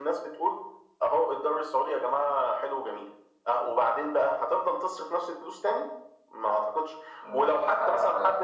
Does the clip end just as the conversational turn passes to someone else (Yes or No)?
No